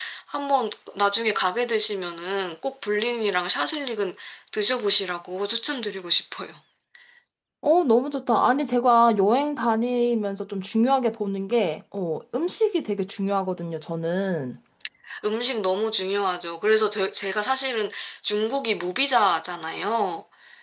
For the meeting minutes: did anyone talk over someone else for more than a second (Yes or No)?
No